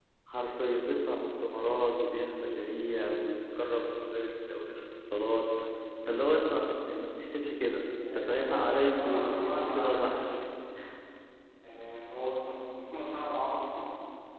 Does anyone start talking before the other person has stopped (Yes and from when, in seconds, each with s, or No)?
Yes, from 8.0 s